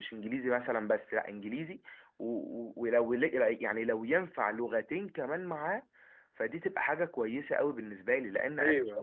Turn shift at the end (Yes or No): Yes